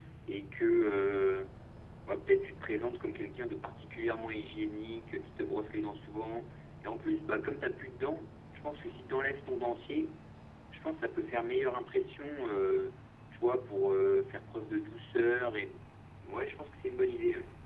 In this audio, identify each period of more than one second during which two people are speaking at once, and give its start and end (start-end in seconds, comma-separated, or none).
none